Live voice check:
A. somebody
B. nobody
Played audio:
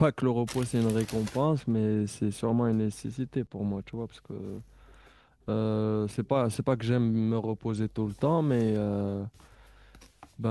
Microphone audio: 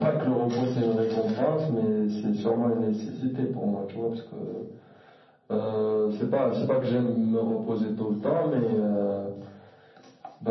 B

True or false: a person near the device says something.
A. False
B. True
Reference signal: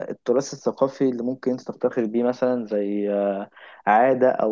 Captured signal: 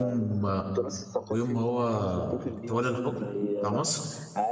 B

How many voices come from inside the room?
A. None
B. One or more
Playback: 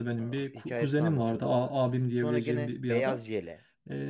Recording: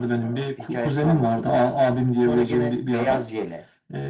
A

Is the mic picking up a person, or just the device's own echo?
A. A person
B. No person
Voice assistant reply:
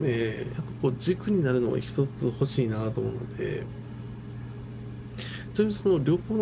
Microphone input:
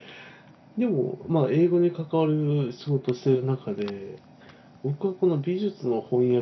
A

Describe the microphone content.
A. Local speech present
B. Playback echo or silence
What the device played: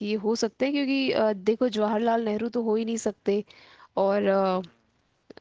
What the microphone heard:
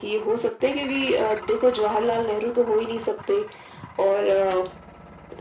B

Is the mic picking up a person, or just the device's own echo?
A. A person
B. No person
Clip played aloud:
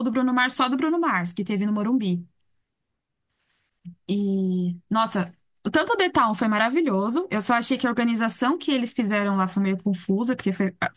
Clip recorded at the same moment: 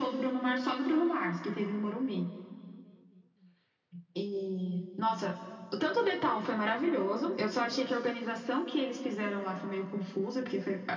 B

